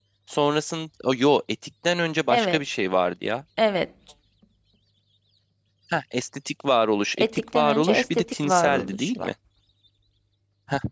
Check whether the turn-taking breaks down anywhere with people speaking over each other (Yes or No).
Yes